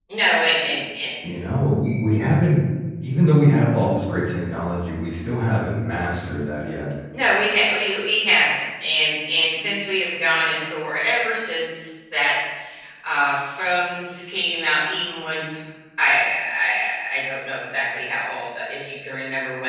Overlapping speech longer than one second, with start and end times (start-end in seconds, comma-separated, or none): none